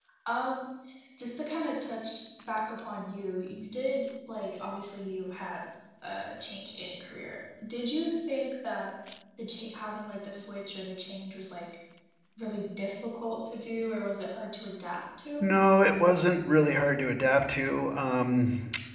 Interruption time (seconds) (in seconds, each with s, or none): none